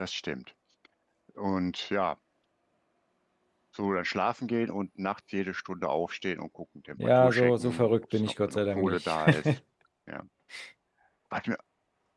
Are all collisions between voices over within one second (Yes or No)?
No